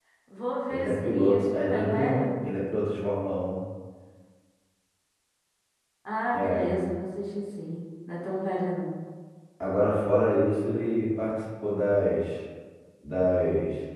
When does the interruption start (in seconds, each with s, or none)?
0.7 s